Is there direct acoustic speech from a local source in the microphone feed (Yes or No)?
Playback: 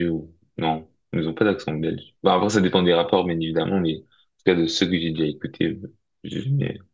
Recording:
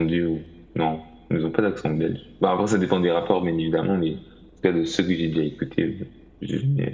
No